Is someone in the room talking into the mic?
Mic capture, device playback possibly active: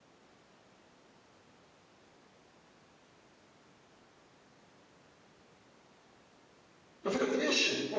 Yes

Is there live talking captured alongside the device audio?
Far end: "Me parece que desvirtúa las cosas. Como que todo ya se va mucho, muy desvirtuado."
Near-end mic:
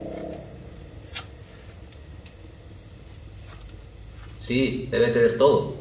Yes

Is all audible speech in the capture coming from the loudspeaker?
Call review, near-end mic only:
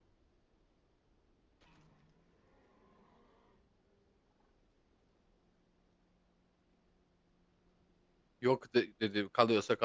No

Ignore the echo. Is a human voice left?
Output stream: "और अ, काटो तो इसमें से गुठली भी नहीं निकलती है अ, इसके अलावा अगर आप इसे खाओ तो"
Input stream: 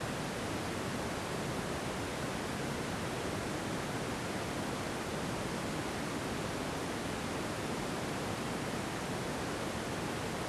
No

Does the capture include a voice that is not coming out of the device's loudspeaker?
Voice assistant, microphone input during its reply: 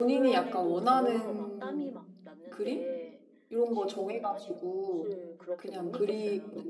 Yes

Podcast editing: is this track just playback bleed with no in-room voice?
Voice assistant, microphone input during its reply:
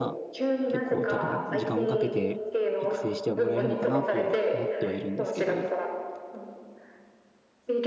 No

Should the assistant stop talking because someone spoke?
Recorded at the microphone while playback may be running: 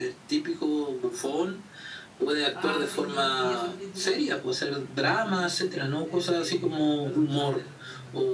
Yes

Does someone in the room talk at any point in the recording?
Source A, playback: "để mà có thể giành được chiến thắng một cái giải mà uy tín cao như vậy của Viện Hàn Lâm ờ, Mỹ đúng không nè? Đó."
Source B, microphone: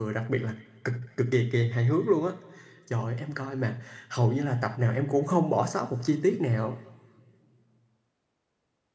Yes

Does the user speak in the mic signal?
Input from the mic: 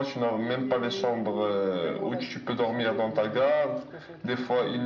Yes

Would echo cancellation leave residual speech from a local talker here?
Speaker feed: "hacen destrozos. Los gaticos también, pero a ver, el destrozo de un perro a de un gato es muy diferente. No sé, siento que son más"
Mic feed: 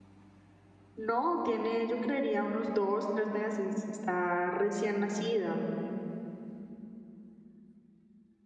Yes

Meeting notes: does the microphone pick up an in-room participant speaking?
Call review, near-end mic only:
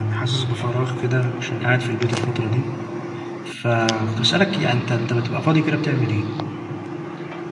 Yes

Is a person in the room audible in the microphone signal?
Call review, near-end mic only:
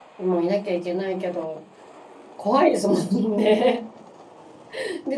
Yes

